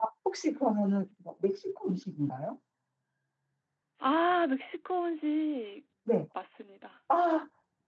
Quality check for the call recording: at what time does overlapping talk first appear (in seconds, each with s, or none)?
none